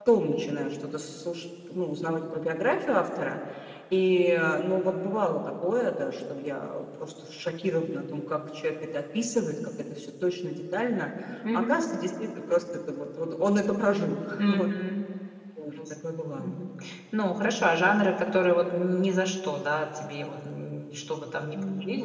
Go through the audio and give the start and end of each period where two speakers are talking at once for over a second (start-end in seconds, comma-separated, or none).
none